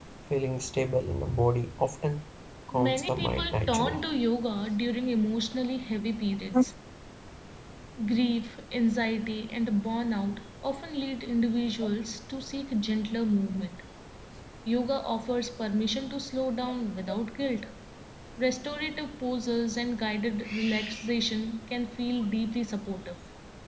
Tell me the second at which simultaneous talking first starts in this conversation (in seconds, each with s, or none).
2.7 s